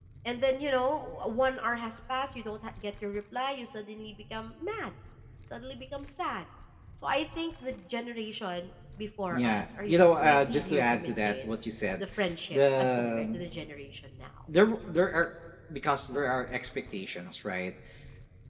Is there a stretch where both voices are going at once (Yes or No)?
Yes